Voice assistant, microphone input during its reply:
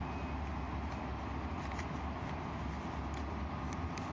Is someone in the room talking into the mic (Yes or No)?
No